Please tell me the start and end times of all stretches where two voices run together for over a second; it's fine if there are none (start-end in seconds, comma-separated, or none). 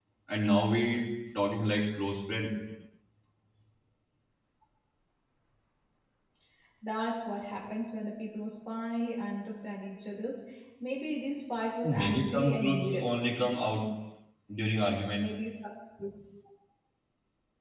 11.8-13.1